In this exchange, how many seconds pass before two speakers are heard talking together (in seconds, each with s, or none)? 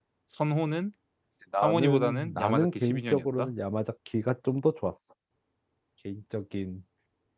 1.6 s